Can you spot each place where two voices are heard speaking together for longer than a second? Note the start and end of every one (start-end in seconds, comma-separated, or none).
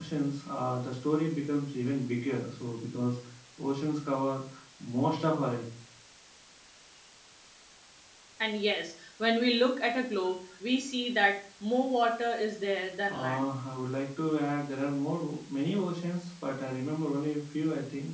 none